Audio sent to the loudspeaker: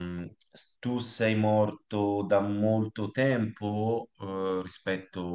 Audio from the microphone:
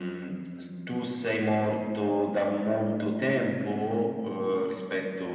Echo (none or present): present